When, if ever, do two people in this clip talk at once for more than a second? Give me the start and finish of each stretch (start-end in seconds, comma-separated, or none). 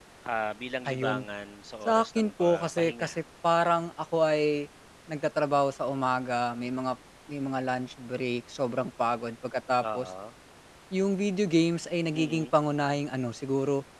1.9-3.2